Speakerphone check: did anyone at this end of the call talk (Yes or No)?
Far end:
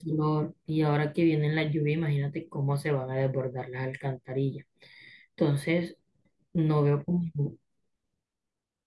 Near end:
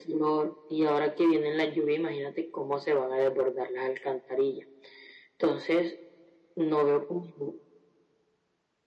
No